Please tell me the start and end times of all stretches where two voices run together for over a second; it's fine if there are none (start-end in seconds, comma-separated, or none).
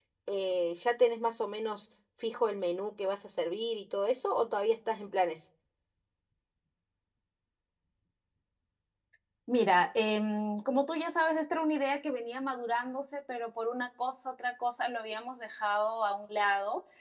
none